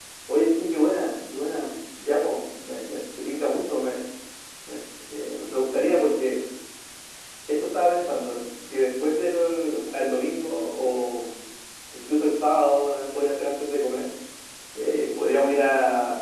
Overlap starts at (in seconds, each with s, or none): none